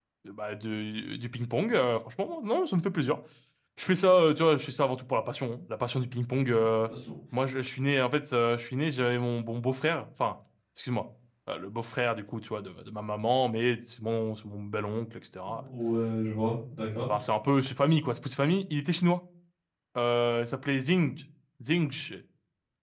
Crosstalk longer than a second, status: none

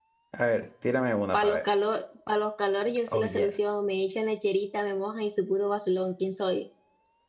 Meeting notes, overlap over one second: none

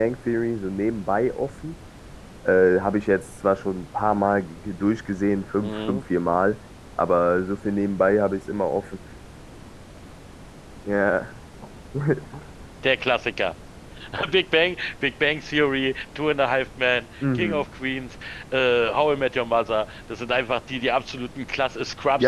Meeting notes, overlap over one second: none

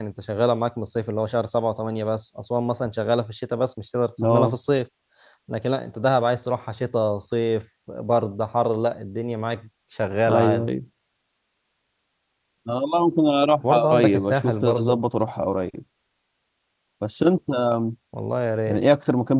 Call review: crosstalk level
present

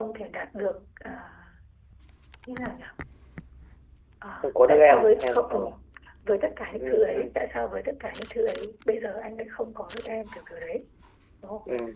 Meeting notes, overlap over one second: present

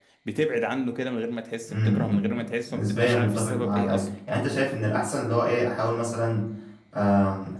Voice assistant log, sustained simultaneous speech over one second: present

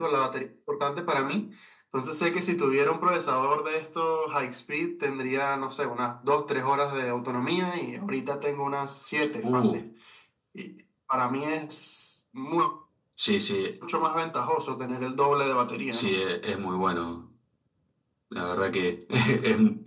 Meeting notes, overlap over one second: none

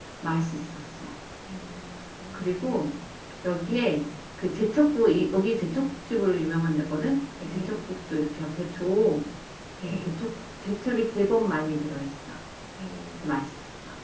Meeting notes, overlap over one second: none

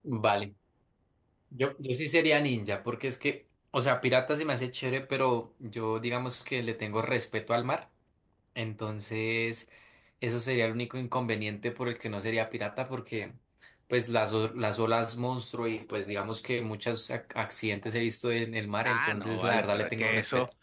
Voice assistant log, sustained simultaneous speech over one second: present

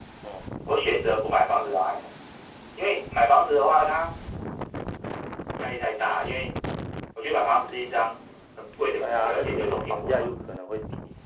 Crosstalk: present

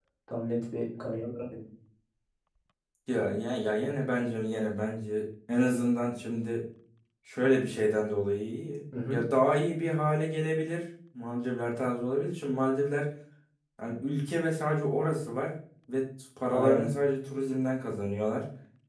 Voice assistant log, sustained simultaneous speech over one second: none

